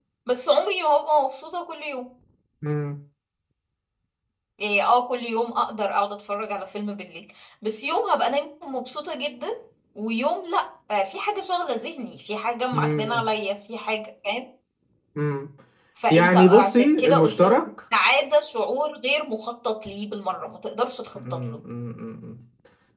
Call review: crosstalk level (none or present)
present